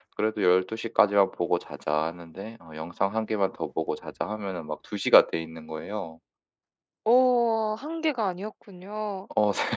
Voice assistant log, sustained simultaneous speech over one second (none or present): none